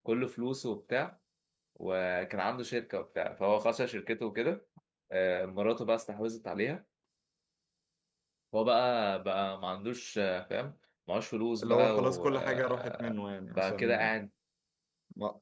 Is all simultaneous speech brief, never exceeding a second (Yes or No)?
No